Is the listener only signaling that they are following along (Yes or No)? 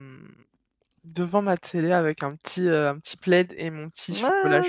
No